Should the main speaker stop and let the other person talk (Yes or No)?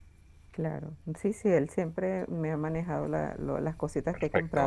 No